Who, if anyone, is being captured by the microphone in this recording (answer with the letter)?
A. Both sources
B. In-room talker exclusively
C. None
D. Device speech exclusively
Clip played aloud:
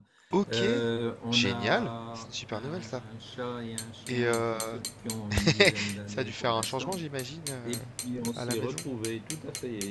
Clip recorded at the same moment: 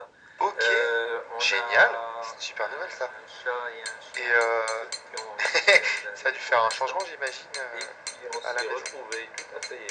D